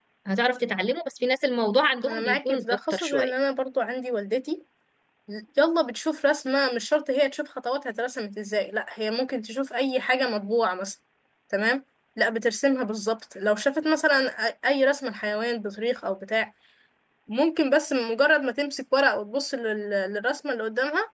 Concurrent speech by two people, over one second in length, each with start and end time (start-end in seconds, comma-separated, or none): 2.1-3.3